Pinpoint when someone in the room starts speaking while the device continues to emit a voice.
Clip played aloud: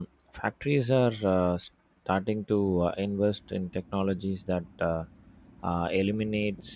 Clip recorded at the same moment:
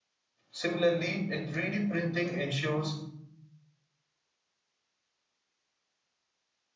0.5 s

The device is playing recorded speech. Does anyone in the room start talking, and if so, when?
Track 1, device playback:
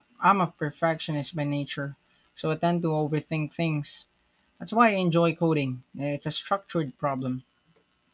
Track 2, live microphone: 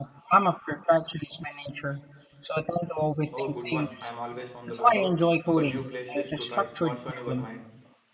3.3 s

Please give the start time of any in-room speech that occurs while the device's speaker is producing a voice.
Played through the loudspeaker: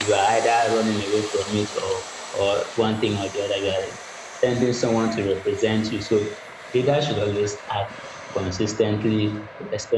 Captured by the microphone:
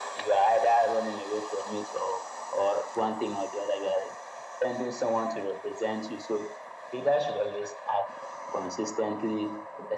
none

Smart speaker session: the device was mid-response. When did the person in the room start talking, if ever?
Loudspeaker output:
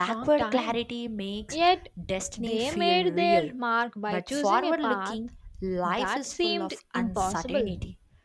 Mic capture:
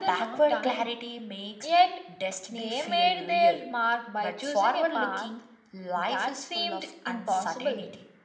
none

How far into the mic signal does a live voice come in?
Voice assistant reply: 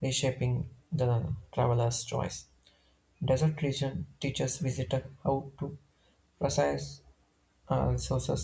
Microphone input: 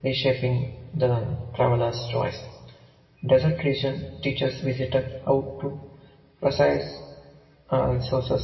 none

